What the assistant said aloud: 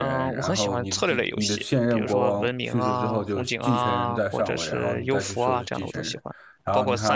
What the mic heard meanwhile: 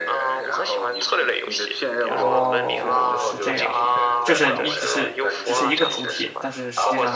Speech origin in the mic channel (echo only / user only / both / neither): both